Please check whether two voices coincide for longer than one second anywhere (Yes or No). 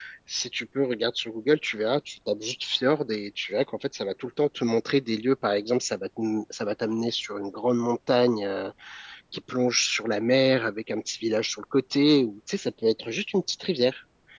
No